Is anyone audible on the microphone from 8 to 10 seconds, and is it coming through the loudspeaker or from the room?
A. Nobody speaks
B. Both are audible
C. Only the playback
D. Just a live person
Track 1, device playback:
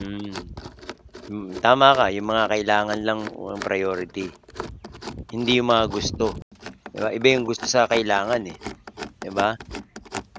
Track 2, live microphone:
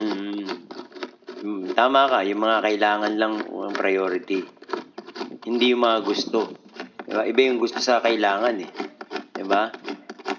C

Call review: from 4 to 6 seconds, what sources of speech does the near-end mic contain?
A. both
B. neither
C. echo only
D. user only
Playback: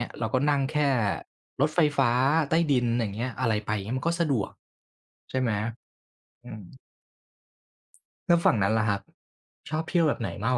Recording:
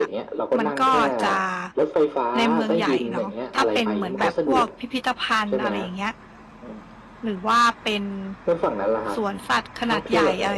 A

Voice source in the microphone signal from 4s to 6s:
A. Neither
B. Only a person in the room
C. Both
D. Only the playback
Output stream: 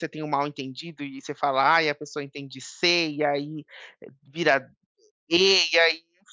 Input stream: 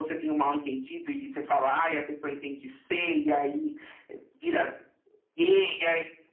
D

